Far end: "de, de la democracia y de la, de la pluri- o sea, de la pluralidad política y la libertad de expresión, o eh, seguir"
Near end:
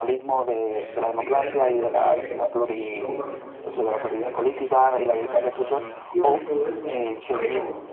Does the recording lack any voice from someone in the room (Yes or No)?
No